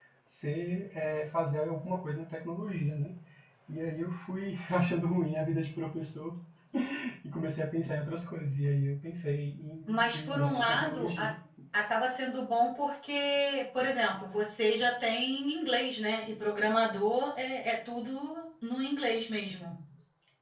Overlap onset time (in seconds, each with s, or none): 9.9 s